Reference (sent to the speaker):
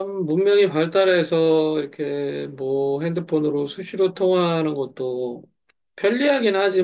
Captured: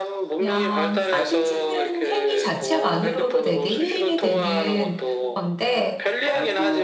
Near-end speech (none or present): present